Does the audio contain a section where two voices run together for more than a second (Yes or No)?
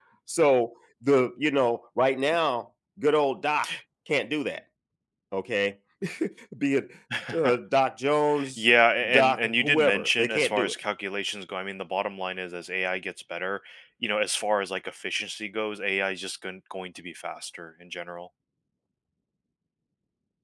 Yes